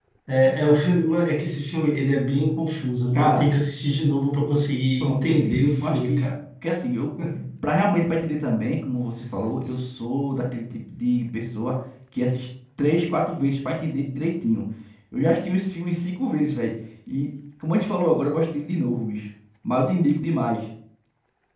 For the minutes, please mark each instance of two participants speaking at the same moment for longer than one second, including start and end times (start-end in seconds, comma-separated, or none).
5.0-6.3